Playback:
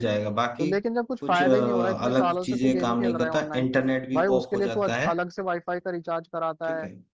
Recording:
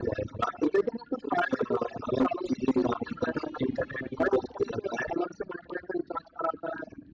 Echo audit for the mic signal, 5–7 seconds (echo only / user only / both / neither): echo only